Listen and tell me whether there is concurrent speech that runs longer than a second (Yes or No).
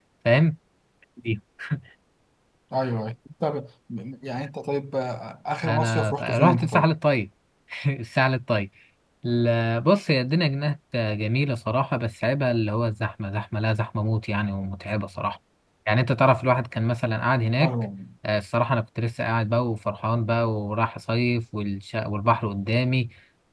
Yes